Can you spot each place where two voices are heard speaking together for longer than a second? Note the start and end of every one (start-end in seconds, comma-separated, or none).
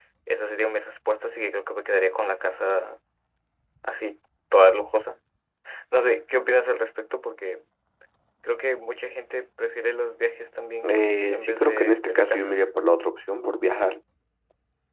10.9-12.6